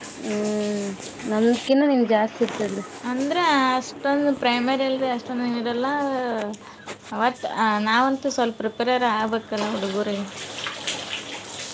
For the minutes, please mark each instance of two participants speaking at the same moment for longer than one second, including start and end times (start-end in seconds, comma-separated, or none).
none